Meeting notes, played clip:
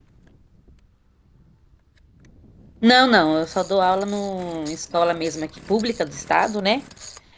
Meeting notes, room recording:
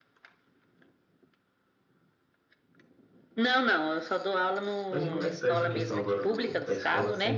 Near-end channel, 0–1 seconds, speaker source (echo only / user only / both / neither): neither